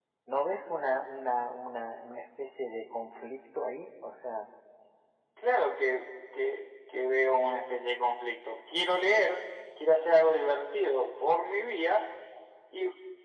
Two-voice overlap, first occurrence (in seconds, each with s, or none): none